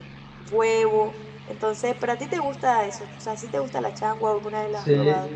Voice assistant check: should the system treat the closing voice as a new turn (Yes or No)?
Yes